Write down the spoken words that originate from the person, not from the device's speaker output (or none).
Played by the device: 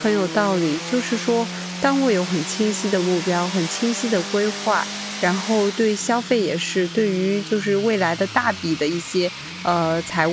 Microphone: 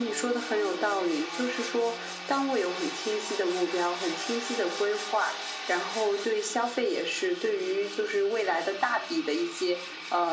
none